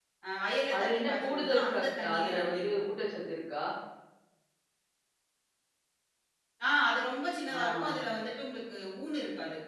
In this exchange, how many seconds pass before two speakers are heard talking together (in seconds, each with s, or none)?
0.8 s